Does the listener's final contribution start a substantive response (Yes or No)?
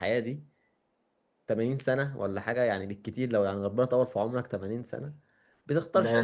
Yes